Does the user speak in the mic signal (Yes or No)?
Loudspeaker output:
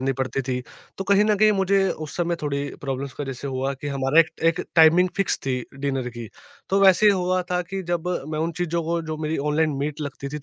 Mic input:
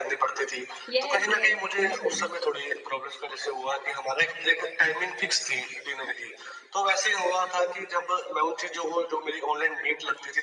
Yes